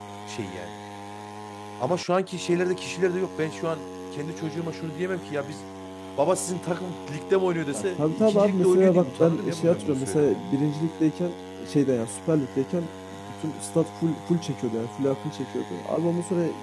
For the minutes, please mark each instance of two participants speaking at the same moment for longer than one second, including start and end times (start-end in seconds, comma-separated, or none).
7.8-10.4